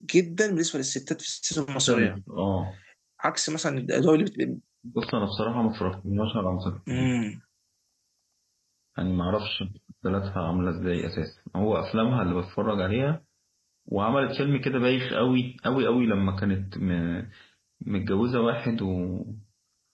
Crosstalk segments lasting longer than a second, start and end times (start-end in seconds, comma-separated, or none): none